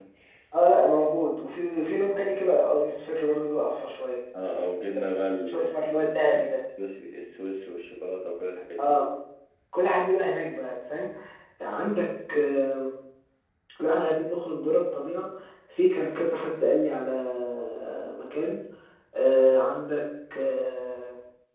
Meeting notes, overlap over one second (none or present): none